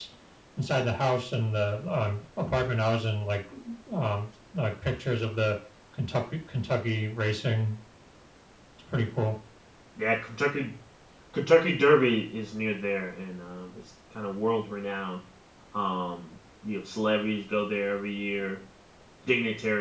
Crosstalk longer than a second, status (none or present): none